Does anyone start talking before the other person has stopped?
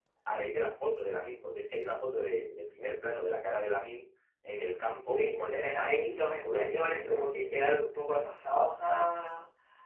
Yes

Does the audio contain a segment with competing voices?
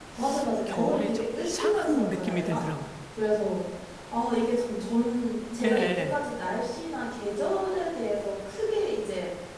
Yes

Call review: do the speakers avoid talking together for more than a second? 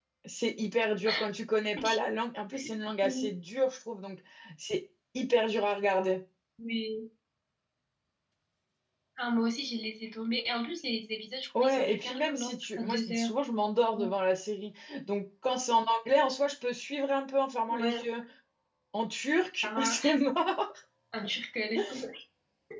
No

